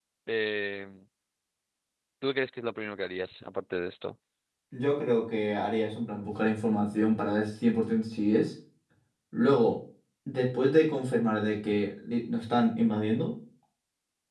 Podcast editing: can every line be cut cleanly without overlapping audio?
Yes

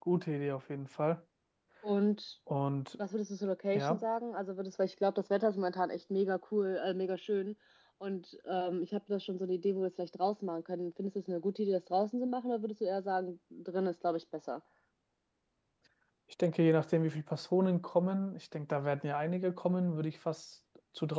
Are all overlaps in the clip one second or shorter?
Yes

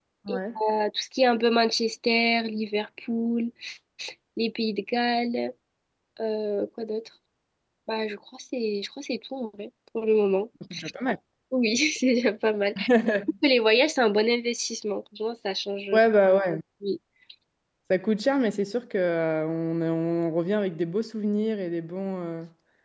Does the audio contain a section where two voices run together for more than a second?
No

